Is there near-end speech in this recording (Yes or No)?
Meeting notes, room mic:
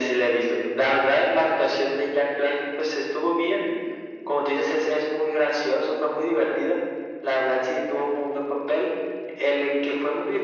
No